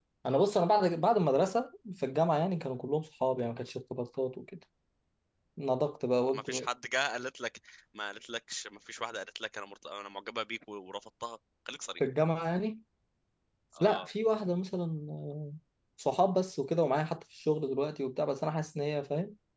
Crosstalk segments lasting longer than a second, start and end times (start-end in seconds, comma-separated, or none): none